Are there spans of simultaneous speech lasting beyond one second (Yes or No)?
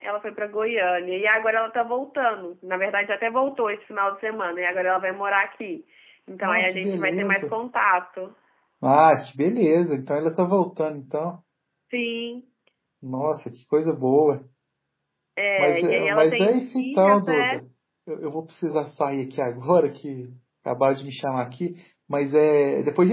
Yes